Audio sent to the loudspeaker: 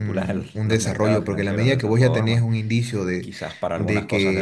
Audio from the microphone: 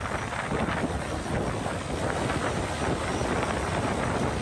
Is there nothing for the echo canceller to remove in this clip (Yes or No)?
Yes